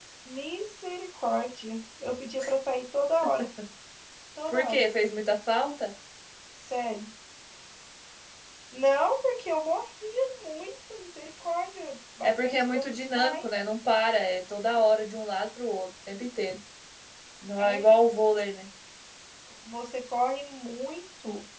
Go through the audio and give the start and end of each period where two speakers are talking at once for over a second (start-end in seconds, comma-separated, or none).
12.2-13.5